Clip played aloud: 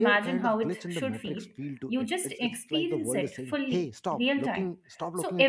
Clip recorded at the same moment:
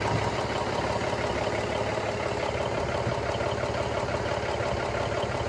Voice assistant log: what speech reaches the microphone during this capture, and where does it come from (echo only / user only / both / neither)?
neither